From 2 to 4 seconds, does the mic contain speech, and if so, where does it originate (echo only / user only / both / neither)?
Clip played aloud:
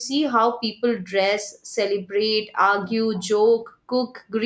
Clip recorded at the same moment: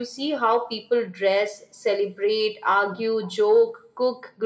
echo only